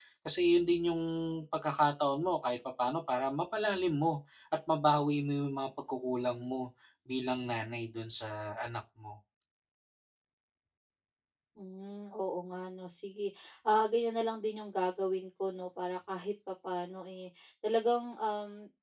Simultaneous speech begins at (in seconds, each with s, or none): none